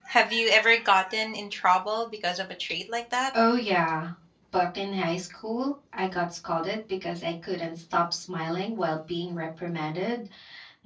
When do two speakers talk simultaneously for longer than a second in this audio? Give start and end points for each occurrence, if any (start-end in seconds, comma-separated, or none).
none